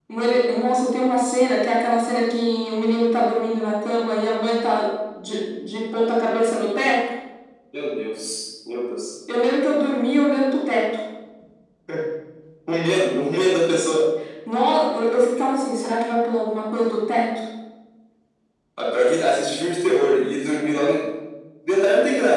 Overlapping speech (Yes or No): No